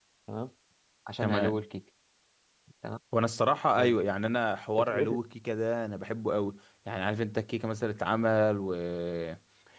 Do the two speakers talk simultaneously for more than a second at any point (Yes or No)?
No